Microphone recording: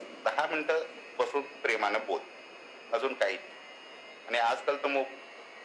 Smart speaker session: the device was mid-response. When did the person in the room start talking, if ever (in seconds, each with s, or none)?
none